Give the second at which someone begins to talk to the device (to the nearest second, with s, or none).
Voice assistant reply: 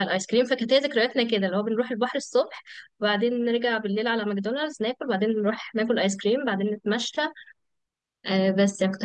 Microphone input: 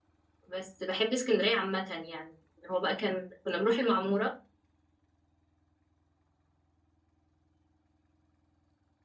0 s